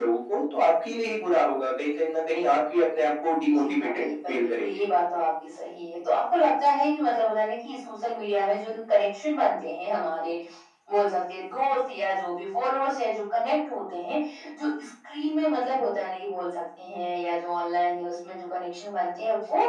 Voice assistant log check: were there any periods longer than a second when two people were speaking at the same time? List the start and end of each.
3.5-4.8

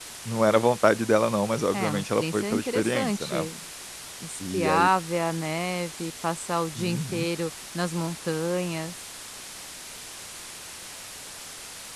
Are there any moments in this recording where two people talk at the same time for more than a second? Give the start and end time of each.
1.7-3.5

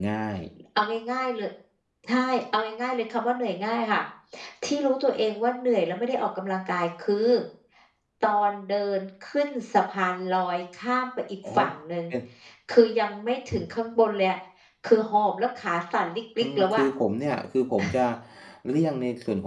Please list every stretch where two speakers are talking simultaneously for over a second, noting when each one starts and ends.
none

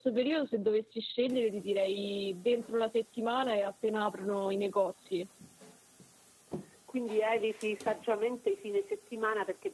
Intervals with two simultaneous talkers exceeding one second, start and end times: none

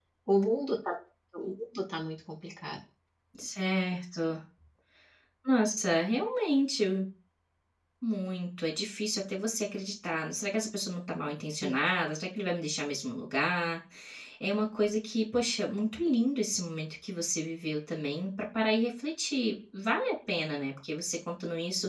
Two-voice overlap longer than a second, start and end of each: none

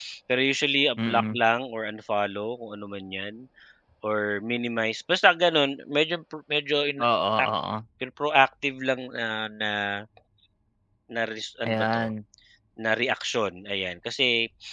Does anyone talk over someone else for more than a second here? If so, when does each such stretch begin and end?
none

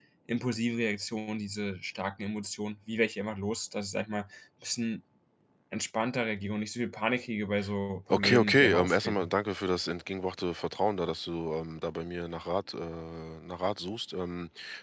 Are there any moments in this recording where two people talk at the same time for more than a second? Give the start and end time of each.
8.1-9.3

